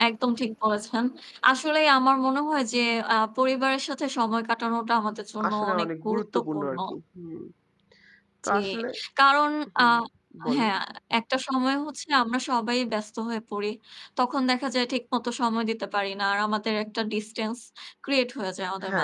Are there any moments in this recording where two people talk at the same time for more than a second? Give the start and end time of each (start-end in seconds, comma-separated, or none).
5.5-6.8